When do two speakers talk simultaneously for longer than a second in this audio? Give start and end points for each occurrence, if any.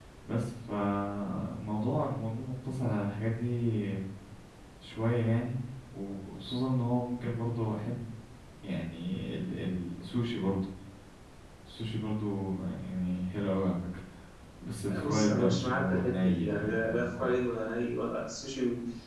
14.9-17.3

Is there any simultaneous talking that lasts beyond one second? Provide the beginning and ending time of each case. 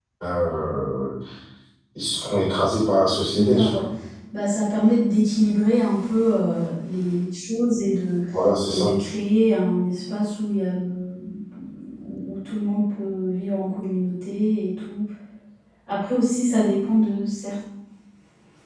none

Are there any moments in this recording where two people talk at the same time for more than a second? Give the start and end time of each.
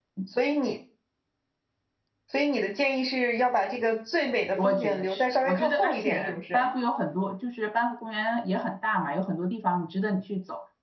4.6-6.7

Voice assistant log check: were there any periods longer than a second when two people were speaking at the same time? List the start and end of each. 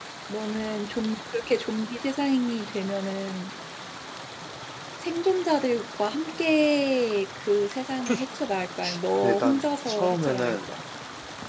9.2-10.6

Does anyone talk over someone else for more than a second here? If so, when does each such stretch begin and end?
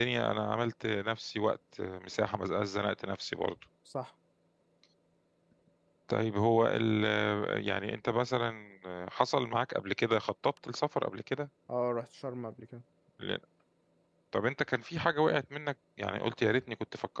none

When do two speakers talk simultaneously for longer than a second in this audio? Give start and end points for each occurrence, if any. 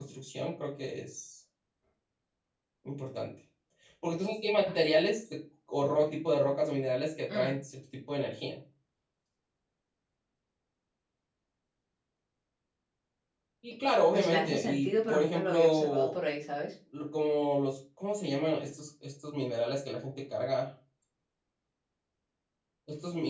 14.1-16.2

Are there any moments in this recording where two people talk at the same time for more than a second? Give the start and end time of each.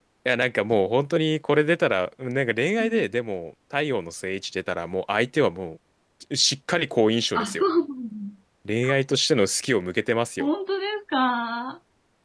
none

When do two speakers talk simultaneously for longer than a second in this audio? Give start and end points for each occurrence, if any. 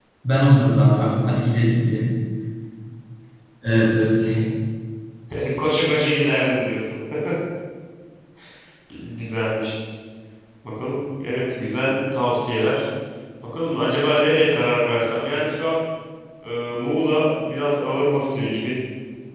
none

